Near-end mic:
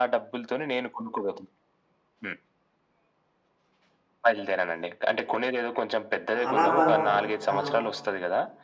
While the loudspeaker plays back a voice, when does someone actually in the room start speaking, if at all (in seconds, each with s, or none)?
6.3 s